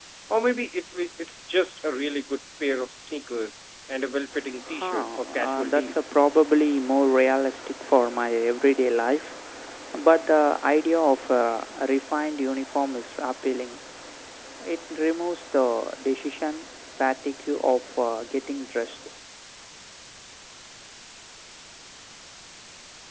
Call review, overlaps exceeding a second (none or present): present